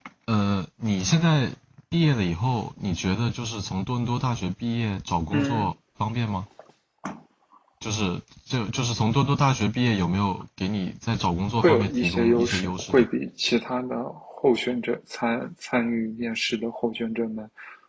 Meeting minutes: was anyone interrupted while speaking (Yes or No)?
Yes